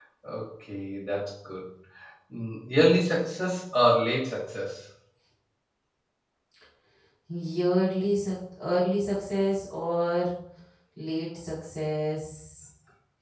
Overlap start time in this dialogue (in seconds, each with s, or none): none